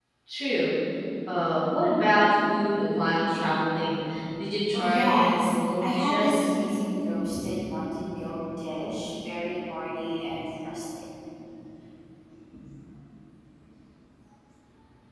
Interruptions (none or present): present